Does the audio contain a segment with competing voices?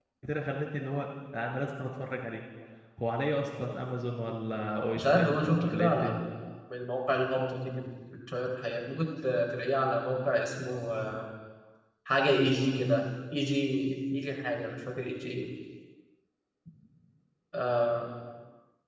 Yes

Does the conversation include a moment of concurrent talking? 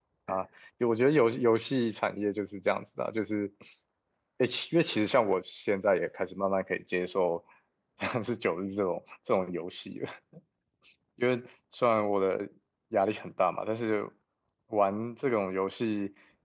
No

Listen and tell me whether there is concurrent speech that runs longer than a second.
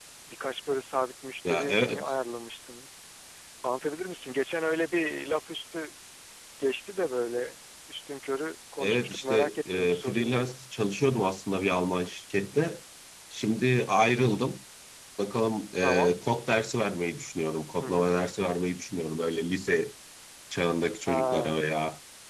Yes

